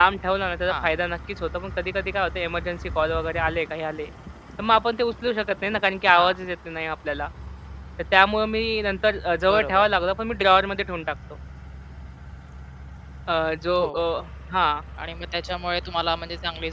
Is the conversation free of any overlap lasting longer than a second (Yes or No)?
Yes